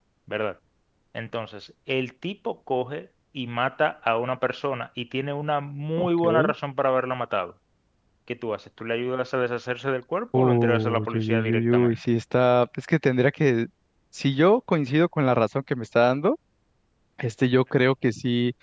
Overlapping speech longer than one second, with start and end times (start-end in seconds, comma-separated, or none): 10.3-12.0